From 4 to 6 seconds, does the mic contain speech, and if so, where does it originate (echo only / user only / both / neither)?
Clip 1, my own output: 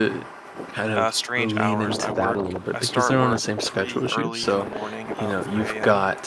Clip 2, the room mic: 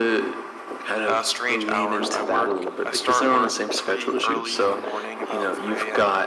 echo only